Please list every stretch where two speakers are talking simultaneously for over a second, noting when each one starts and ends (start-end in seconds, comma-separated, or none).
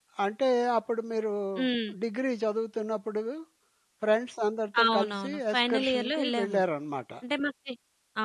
4.8-6.6